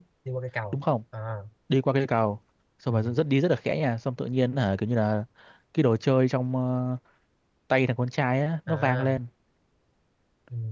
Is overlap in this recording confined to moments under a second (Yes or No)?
Yes